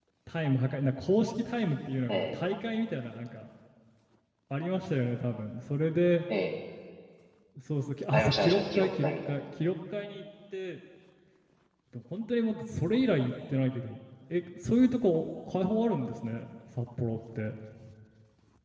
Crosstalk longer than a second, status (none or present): present